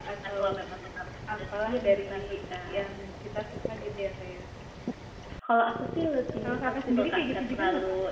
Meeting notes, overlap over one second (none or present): present